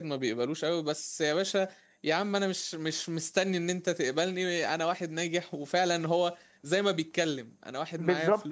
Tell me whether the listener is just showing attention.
Yes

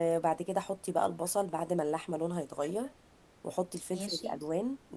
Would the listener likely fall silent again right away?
Yes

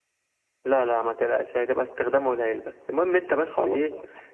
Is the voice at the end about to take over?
No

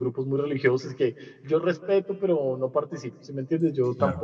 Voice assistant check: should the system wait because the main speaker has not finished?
Yes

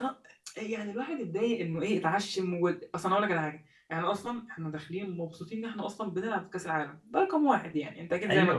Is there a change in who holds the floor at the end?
Yes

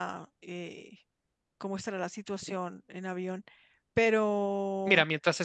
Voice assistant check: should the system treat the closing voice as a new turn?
Yes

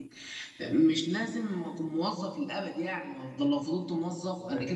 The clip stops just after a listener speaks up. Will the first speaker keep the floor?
Yes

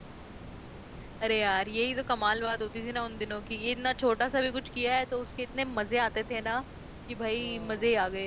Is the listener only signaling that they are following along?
Yes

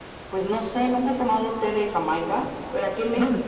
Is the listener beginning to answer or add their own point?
No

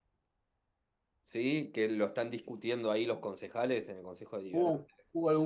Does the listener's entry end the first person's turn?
Yes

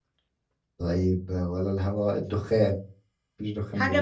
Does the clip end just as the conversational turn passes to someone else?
Yes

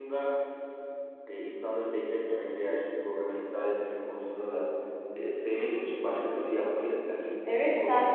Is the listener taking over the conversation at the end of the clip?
Yes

